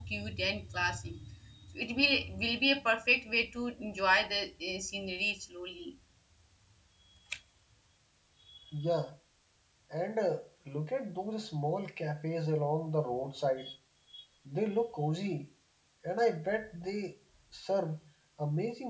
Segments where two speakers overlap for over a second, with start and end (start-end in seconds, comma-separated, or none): none